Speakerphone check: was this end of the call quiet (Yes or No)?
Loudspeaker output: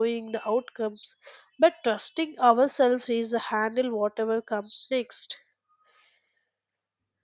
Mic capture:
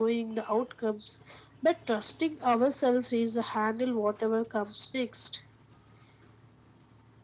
Yes